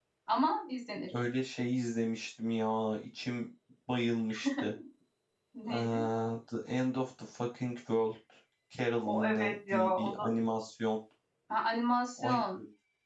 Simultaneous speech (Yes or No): Yes